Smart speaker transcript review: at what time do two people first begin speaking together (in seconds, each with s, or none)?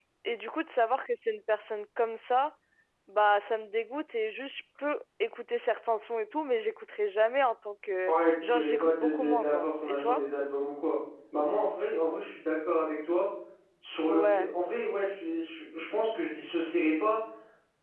8.1 s